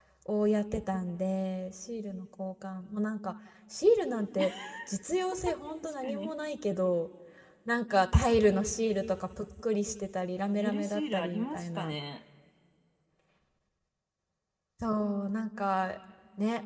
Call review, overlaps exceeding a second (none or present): present